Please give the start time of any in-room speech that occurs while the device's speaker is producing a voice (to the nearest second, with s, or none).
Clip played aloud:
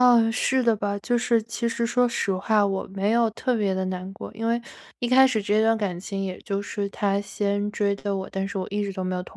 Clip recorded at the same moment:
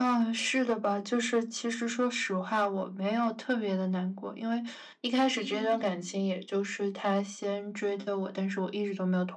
5 s